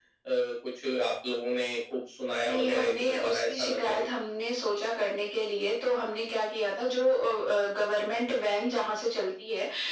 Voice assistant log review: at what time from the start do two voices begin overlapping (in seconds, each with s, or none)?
2.4 s